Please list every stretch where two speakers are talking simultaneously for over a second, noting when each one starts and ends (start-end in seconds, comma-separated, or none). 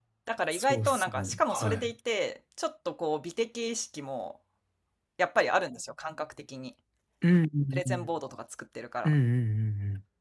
0.5-1.9